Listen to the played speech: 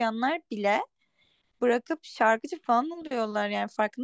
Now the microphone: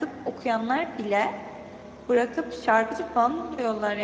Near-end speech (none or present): none